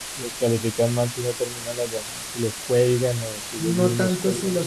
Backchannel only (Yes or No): No